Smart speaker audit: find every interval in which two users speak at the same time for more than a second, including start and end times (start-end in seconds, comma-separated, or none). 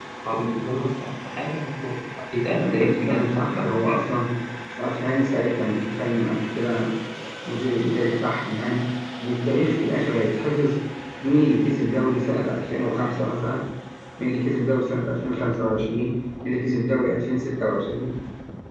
2.5-4.1